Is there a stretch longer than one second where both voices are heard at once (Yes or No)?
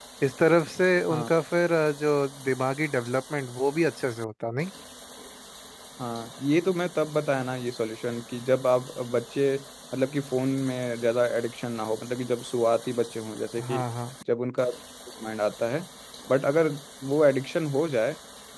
No